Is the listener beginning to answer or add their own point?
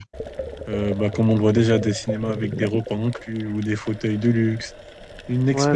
Yes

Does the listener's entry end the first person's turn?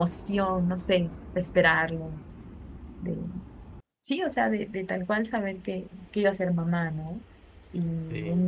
No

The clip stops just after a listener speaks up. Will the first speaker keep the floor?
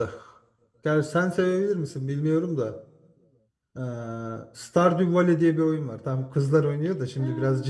Yes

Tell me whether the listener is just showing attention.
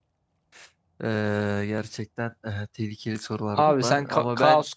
No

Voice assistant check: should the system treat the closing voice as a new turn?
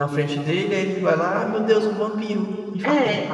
Yes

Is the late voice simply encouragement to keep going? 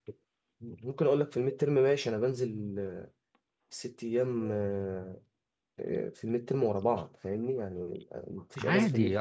No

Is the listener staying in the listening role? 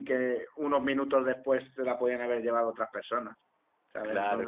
No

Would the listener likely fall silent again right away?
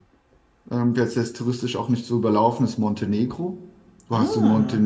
Yes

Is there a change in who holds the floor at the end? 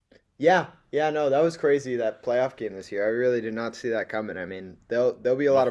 No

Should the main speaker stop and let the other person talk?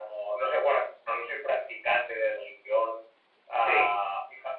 No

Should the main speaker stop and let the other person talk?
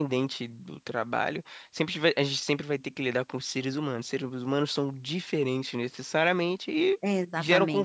No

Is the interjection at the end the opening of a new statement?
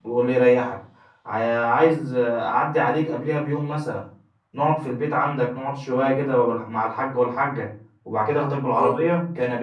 No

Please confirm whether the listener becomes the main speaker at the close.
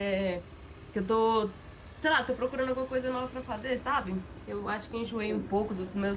No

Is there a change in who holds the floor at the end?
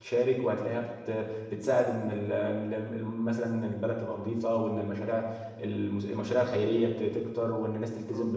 No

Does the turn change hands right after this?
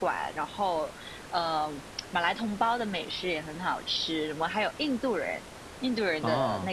No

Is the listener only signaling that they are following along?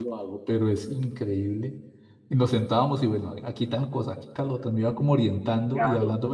Yes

